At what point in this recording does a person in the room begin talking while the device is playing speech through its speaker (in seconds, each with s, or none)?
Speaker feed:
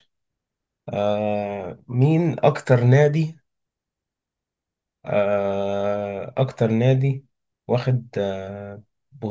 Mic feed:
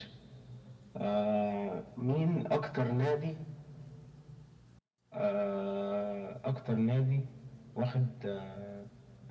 none